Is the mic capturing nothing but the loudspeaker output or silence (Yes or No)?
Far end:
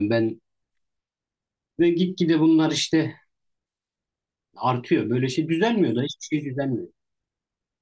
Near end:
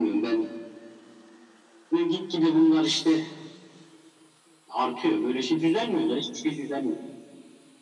Yes